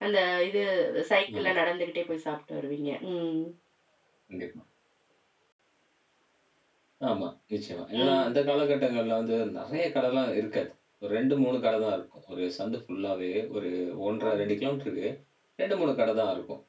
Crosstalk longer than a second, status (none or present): none